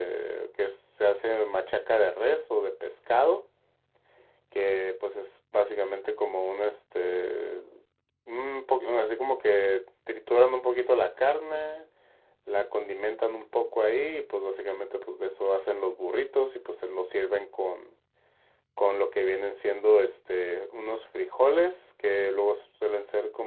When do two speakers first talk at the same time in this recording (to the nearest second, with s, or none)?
none